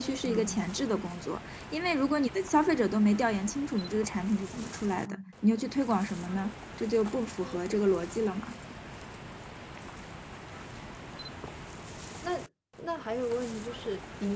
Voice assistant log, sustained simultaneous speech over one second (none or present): none